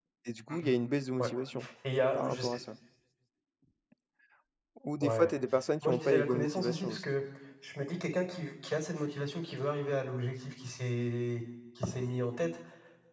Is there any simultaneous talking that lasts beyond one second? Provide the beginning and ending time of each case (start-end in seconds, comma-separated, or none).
5.8-7.1